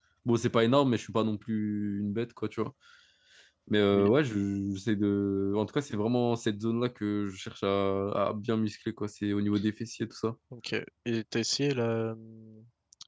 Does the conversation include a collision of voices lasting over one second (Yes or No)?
No